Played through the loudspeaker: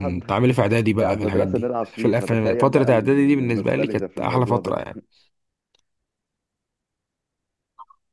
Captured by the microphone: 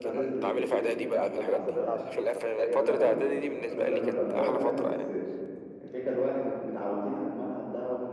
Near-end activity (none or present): present